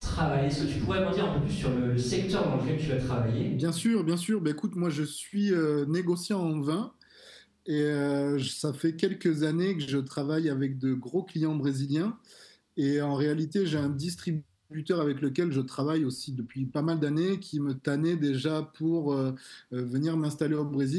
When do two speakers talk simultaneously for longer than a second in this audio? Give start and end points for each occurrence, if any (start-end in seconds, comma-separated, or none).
none